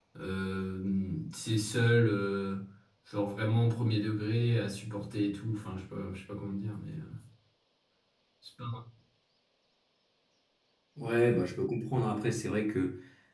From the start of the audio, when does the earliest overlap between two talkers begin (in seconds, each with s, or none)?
none